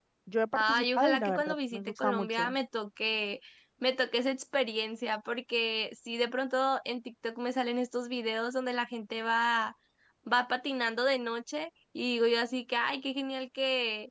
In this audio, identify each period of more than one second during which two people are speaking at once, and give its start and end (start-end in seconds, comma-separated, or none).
0.6-2.5